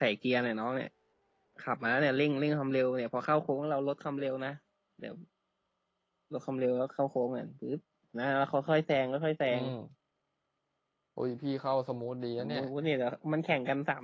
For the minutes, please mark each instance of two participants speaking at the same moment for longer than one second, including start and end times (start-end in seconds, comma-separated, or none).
none